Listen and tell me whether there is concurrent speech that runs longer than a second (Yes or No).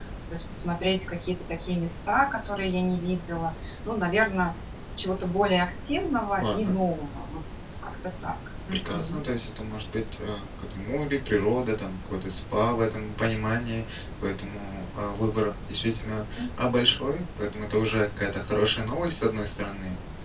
No